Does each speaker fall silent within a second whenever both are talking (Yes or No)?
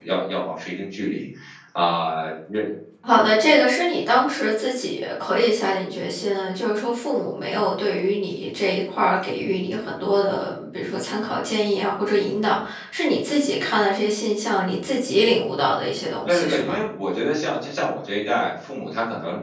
Yes